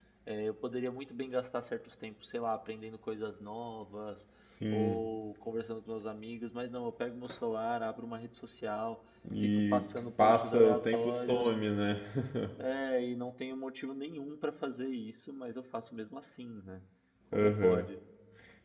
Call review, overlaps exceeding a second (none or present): present